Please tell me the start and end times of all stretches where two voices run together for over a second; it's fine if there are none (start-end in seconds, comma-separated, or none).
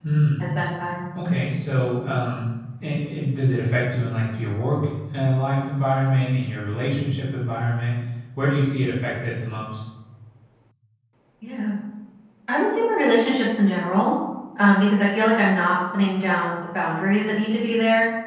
none